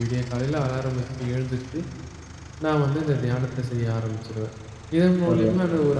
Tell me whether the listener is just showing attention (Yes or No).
Yes